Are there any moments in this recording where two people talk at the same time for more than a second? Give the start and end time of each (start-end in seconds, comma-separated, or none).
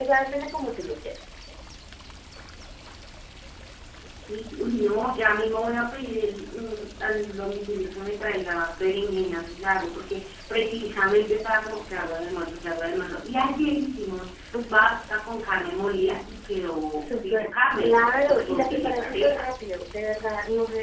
16.9-19.5